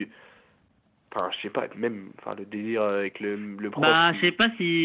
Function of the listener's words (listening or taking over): taking over